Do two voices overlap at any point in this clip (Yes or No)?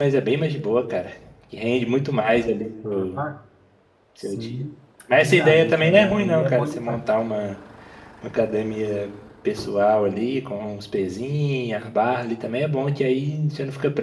Yes